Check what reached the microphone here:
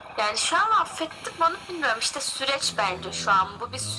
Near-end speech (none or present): present